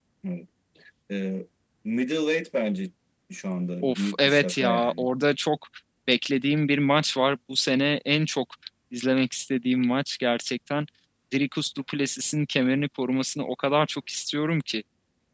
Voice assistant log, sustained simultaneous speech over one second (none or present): present